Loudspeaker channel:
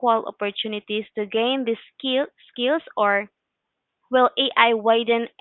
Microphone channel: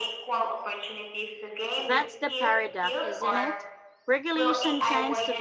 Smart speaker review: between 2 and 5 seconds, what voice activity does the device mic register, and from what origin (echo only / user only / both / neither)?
both